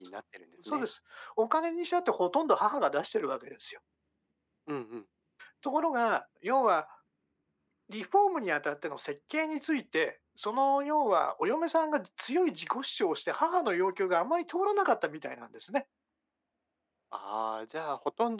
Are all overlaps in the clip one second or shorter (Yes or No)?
Yes